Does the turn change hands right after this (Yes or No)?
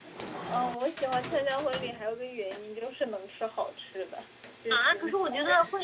Yes